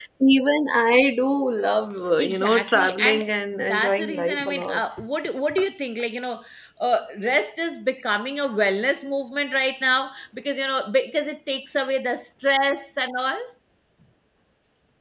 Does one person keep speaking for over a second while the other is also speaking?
Yes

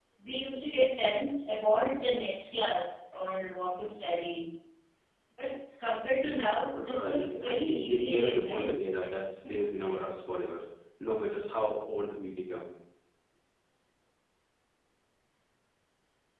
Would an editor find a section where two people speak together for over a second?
Yes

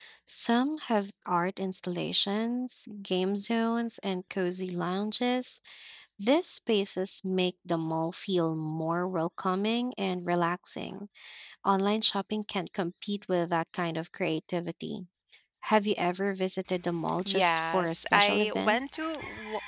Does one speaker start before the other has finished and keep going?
Yes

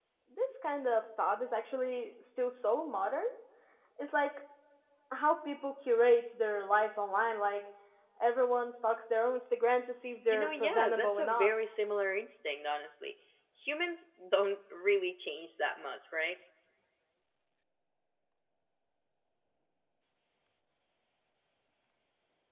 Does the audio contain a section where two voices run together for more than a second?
Yes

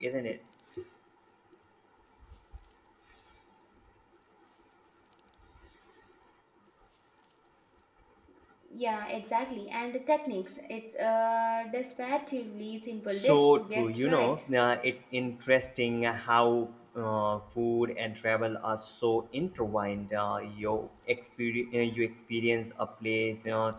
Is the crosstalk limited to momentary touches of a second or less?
No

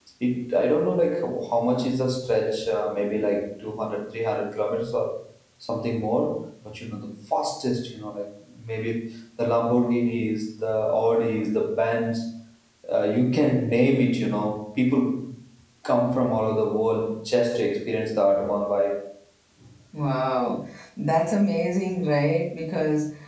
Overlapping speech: No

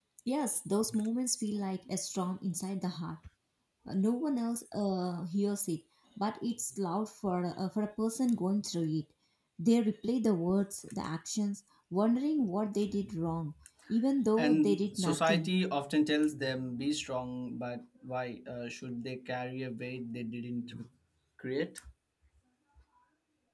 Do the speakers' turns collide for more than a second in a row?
Yes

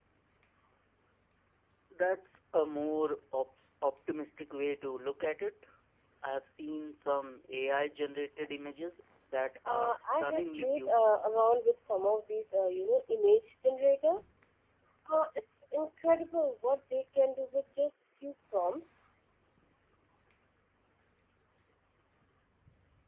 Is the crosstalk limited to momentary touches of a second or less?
No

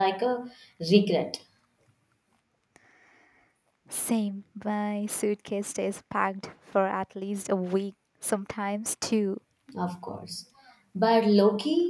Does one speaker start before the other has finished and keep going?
No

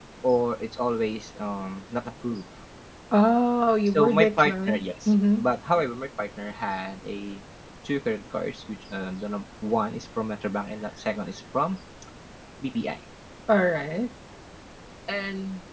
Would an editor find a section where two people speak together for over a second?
Yes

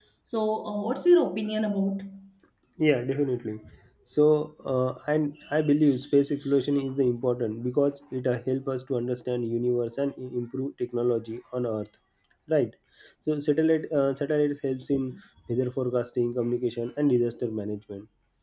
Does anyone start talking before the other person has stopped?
No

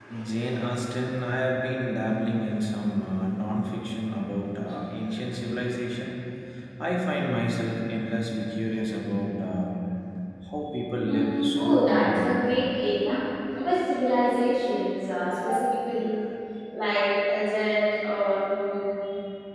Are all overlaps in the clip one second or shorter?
No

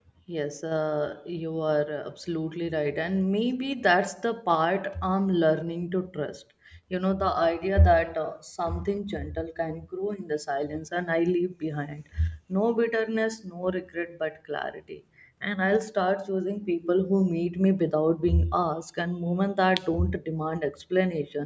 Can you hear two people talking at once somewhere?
No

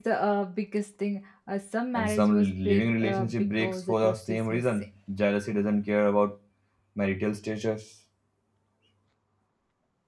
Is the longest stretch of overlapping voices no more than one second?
No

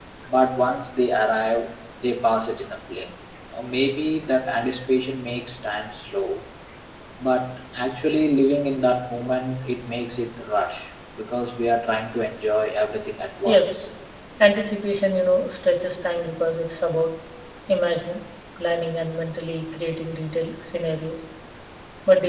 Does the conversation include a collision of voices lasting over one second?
No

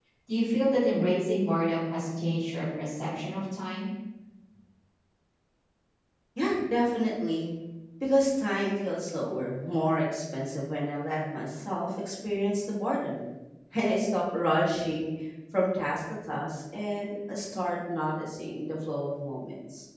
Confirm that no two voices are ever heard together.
Yes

